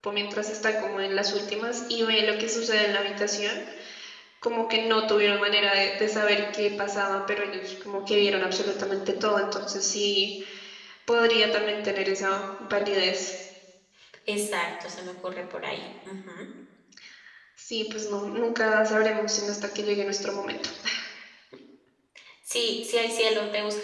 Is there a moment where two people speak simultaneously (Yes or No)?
No